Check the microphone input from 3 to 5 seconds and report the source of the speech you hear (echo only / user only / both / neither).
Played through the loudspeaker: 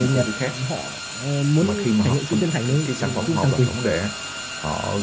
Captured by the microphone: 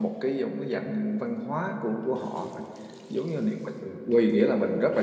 user only